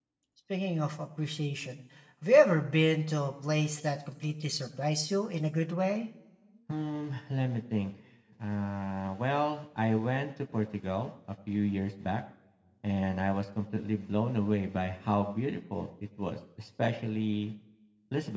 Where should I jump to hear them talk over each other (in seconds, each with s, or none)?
none